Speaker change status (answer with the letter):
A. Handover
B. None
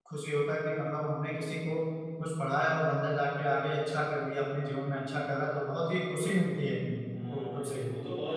A